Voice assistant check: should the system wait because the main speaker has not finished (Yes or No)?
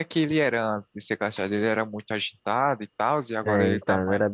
No